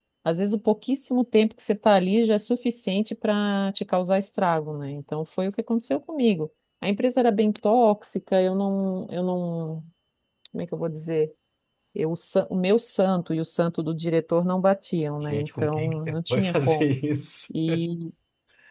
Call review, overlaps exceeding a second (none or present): present